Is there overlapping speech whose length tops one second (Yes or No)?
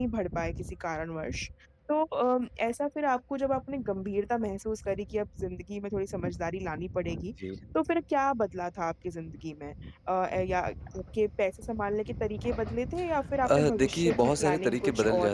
Yes